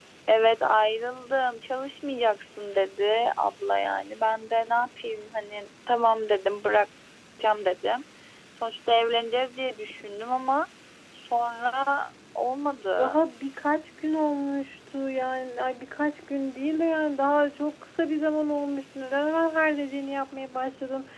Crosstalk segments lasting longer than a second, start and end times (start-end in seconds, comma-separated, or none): none